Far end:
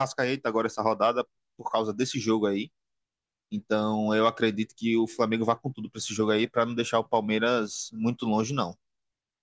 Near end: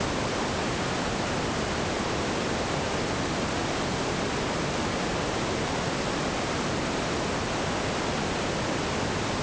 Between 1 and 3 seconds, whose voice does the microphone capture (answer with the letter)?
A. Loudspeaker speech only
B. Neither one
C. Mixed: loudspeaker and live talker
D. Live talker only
B